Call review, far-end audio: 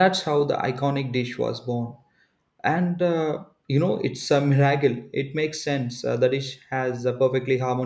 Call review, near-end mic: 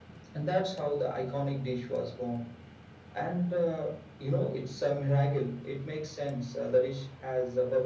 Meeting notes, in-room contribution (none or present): none